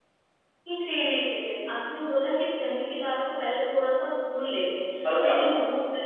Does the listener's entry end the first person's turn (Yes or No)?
No